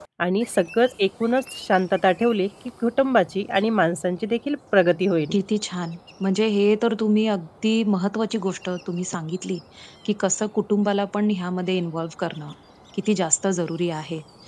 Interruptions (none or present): none